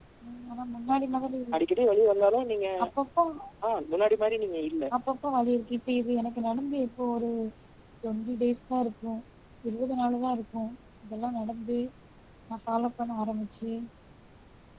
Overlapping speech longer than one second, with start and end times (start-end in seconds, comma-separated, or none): none